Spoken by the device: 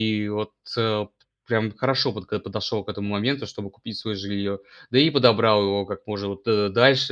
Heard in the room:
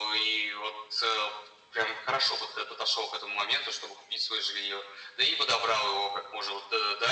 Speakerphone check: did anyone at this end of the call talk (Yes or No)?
No